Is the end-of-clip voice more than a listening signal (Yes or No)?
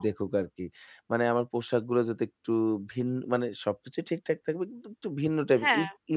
No